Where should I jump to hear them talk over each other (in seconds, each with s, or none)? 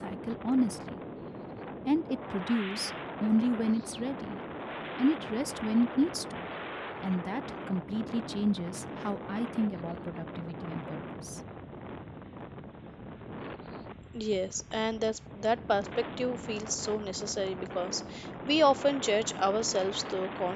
none